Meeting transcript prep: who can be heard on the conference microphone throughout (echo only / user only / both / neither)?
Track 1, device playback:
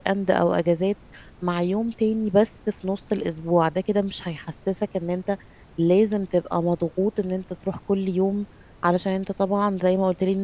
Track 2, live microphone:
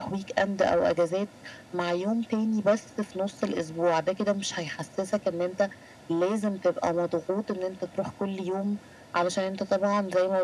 echo only